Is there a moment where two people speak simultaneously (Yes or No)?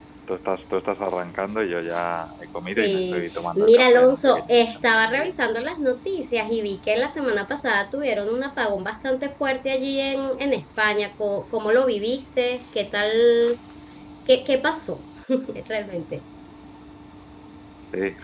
Yes